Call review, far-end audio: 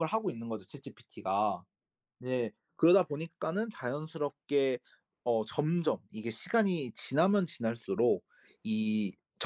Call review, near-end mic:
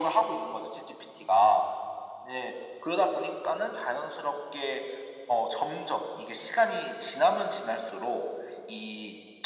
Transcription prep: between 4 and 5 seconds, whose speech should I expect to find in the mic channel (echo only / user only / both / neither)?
echo only